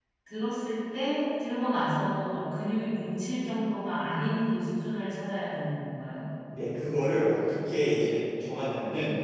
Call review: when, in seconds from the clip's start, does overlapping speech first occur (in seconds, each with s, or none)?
none